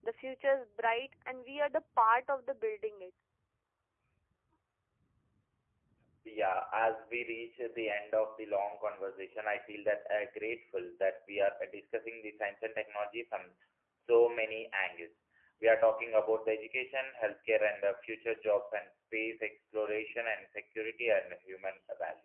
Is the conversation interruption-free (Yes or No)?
Yes